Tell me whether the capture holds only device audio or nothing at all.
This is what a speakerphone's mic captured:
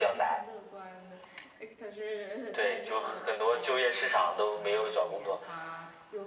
No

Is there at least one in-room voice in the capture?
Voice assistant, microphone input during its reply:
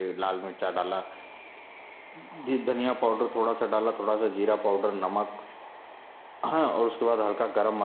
Yes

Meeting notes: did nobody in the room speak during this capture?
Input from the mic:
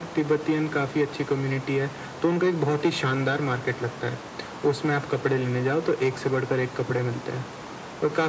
Yes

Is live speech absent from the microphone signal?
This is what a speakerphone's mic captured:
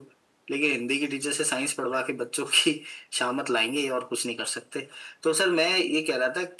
Yes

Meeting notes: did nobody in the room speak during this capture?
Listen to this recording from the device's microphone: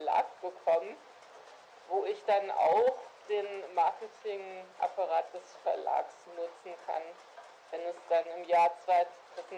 Yes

